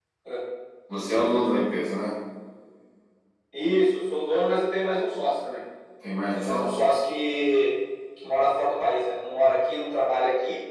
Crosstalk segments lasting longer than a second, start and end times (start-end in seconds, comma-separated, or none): none